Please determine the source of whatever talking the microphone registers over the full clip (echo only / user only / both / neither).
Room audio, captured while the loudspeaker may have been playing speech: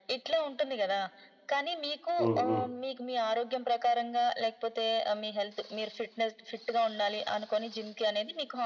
both